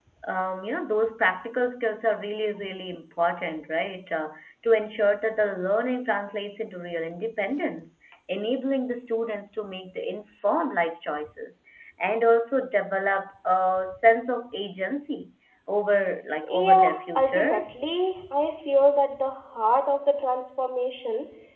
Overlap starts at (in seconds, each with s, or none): 16.5 s